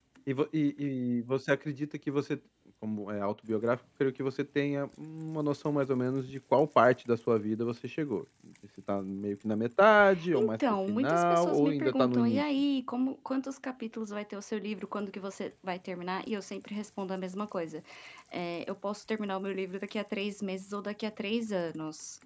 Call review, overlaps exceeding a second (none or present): present